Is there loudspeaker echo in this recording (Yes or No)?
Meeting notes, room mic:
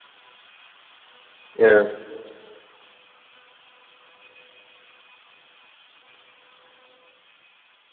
No